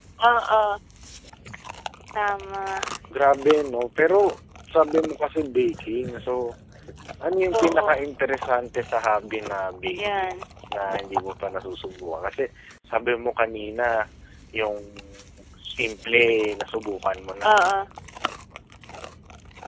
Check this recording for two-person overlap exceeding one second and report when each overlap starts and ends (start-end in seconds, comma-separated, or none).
none